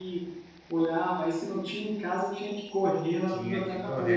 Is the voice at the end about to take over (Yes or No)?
Yes